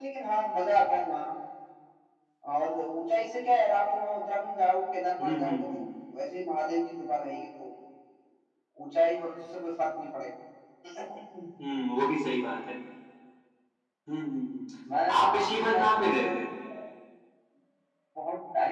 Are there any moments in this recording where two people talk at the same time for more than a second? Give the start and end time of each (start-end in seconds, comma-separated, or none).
15.2-16.4